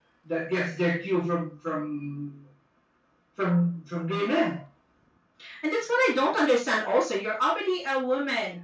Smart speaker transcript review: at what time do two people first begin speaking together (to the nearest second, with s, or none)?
none